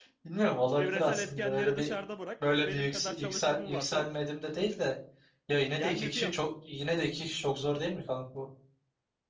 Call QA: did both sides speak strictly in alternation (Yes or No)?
No